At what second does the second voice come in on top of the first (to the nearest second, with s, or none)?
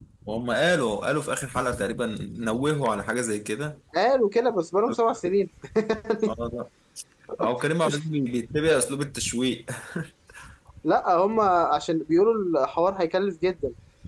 none